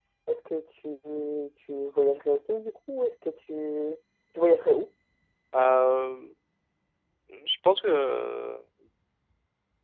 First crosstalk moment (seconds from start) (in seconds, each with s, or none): none